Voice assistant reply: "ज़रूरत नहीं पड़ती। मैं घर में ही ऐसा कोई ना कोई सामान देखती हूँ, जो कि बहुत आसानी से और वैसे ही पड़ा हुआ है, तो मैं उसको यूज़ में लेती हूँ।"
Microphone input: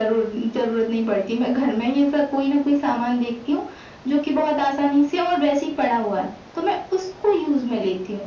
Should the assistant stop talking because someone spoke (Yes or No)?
No